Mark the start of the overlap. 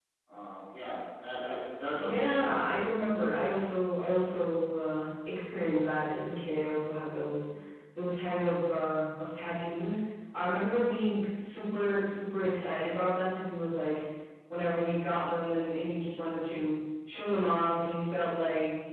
2.0 s

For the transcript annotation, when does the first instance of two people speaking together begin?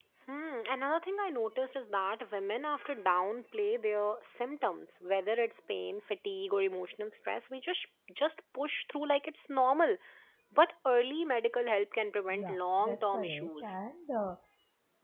12.3 s

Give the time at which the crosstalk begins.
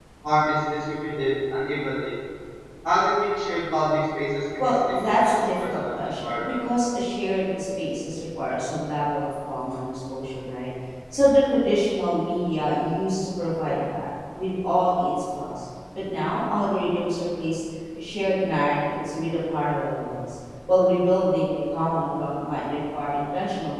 4.6 s

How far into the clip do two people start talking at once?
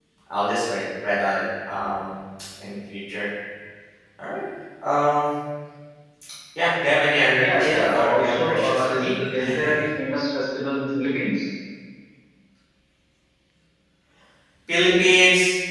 7.4 s

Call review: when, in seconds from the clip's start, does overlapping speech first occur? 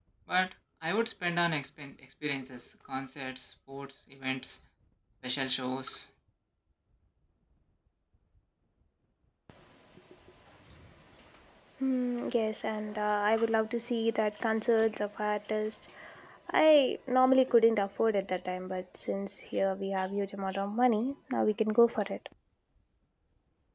none

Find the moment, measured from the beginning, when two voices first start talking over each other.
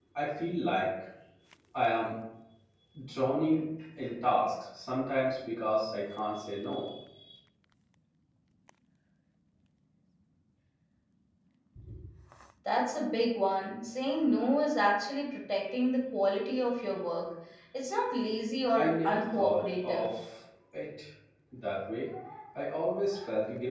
18.8 s

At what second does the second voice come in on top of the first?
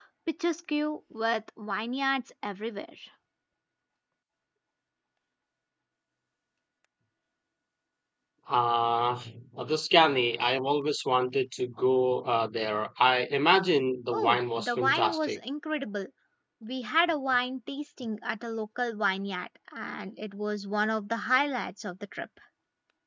14.1 s

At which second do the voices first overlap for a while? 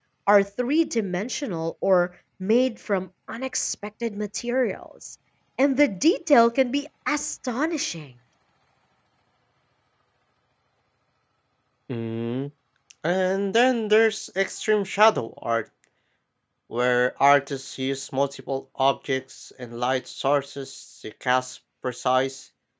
none

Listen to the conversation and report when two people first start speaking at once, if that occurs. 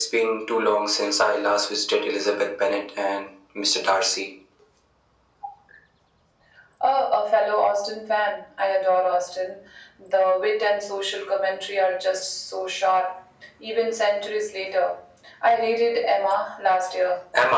none

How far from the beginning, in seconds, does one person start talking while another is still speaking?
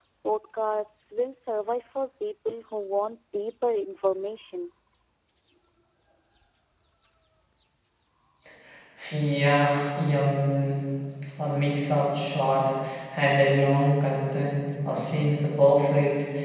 none

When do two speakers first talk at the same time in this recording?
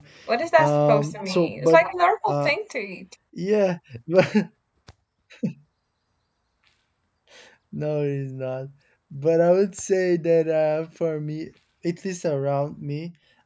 0.6 s

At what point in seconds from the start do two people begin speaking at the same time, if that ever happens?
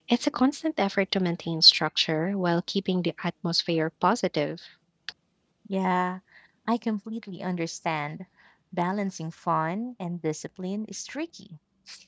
none

